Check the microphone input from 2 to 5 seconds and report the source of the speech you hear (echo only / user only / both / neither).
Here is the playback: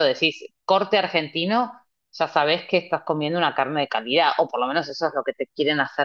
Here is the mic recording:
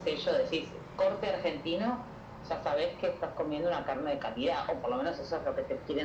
echo only